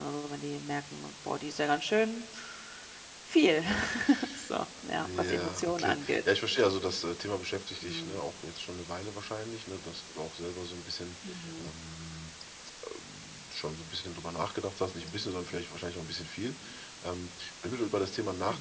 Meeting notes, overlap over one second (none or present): present